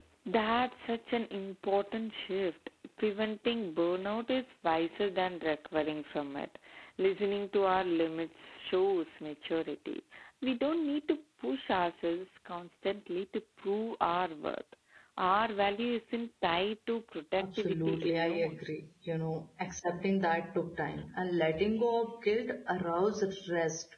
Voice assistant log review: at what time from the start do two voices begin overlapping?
17 s

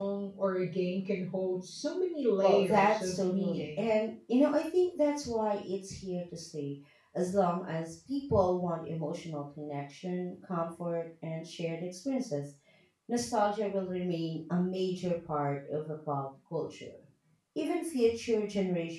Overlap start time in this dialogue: 2 s

